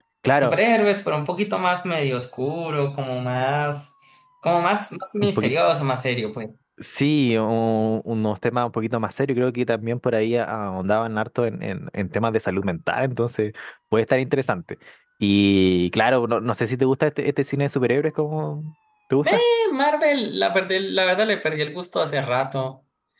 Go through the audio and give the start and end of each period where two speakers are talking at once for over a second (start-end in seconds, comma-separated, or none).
none